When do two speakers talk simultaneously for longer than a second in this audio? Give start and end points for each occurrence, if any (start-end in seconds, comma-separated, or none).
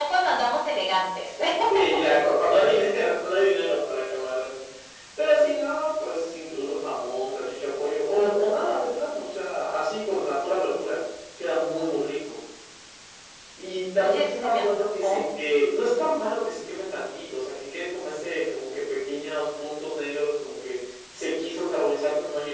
14.0-15.2